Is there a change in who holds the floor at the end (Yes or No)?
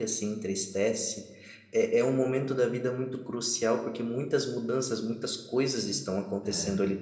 Yes